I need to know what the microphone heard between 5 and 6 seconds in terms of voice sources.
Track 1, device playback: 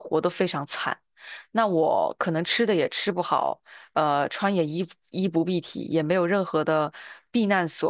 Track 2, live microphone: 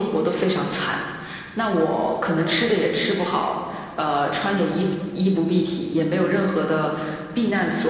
echo only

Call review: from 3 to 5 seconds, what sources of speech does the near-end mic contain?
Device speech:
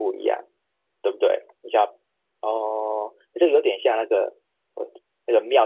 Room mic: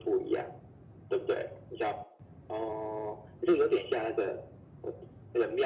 echo only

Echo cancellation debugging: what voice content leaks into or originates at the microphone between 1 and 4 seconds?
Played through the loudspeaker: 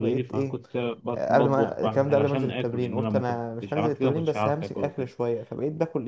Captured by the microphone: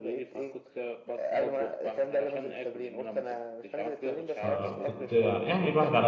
echo only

